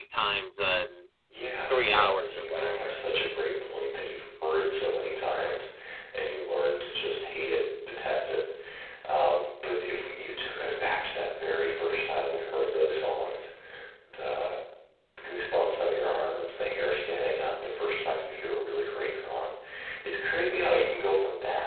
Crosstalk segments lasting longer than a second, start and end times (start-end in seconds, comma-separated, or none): 1.7-3.0